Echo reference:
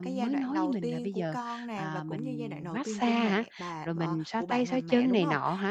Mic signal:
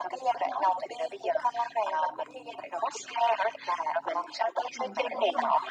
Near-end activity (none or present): present